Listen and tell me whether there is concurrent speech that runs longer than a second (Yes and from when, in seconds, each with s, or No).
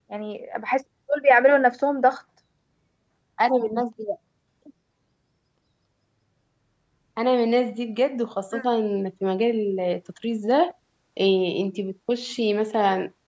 No